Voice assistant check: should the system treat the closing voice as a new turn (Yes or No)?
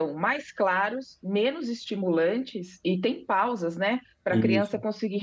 No